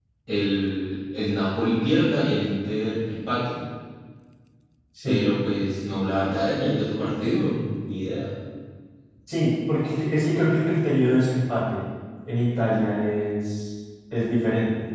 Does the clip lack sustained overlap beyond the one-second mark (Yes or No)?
Yes